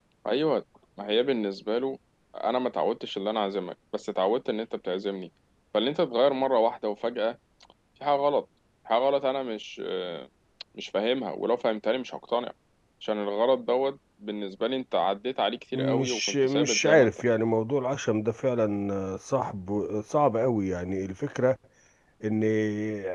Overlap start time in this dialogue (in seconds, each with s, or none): 15.7 s